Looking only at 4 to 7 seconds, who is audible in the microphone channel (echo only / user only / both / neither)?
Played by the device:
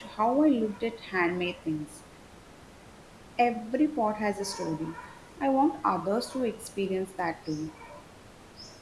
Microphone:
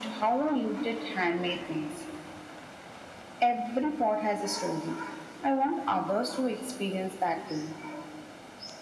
echo only